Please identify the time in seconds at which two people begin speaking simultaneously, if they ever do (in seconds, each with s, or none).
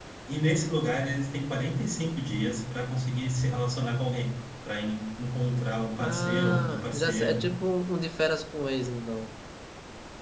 6.0 s